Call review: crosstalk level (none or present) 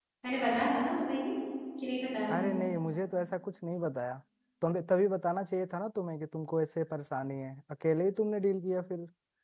none